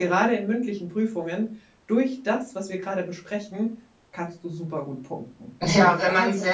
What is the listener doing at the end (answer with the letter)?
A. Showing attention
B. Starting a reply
B